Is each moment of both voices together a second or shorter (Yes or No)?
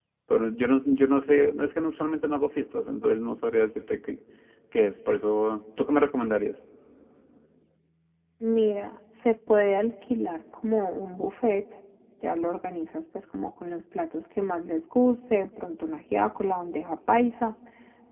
Yes